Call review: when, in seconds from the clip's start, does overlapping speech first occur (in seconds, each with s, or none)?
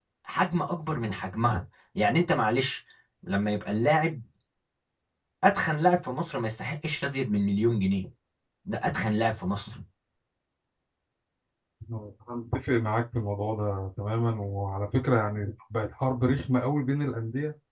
none